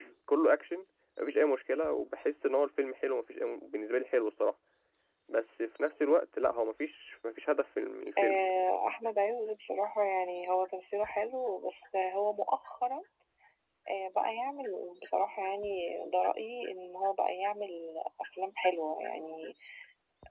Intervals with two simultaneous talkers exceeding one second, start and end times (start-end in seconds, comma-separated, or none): none